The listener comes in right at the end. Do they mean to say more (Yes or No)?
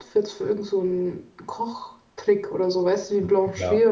Yes